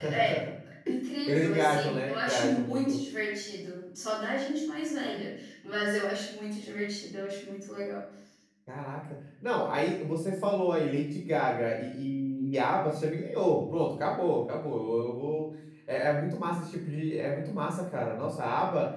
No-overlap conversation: No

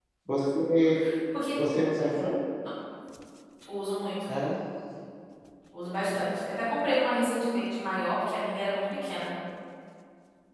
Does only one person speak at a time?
Yes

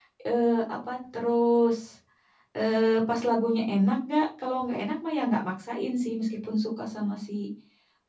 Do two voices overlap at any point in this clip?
No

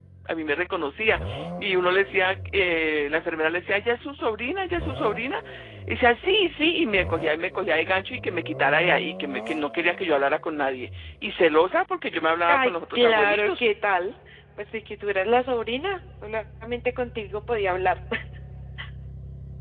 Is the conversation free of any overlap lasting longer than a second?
No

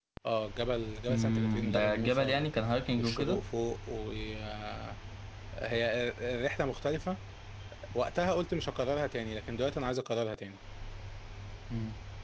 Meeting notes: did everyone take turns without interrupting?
No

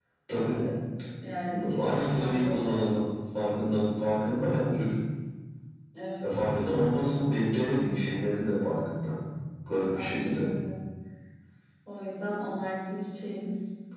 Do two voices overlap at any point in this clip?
Yes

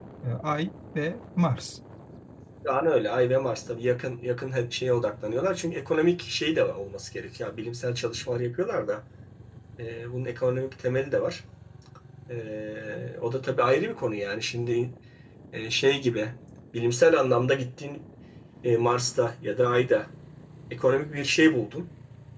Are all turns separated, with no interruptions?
Yes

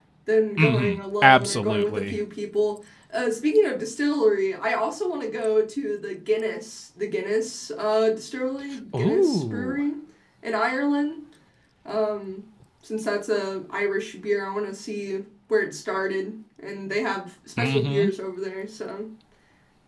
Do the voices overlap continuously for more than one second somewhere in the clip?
Yes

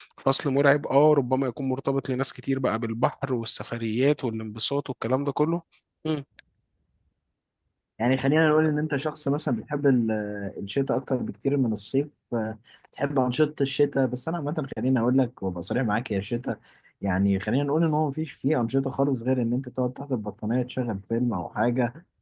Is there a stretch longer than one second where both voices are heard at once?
No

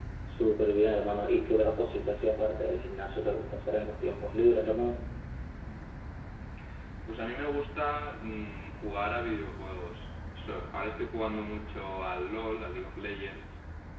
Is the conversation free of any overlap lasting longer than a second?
Yes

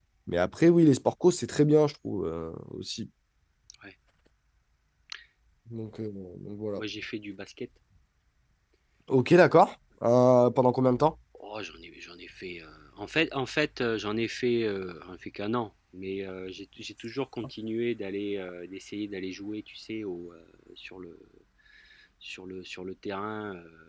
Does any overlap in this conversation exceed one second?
No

